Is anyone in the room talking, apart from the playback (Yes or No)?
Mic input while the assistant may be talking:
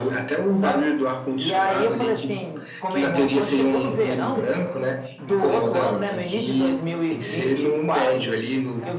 Yes